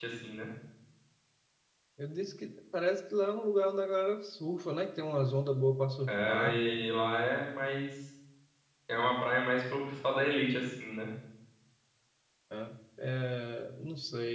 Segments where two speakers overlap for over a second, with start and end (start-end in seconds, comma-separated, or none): none